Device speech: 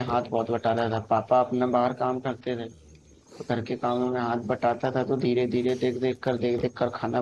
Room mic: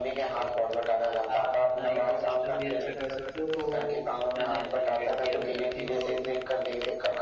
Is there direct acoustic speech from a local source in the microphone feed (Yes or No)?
Yes